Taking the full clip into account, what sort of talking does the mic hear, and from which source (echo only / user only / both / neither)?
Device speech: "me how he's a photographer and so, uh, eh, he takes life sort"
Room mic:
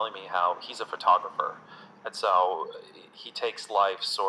echo only